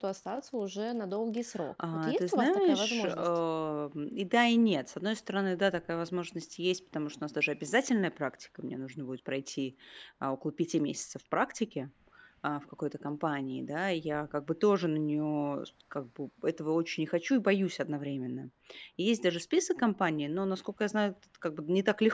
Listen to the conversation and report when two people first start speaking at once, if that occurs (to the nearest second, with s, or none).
2 s